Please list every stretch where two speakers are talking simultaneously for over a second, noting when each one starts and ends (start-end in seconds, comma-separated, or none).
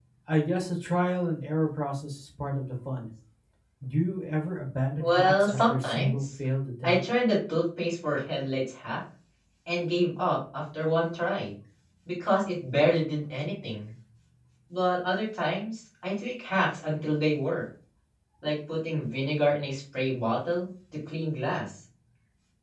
5.0-6.2